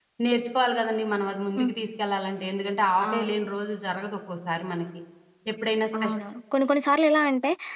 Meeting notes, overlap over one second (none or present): none